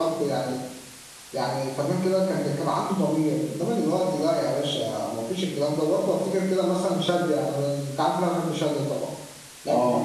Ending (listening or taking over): listening